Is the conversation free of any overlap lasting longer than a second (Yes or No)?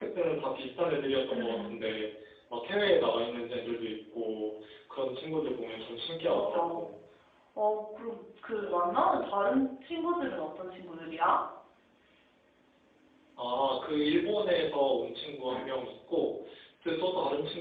Yes